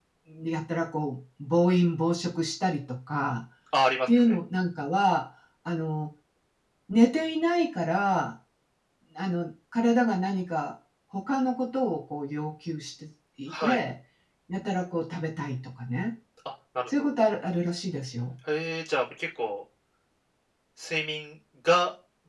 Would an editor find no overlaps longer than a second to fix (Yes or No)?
Yes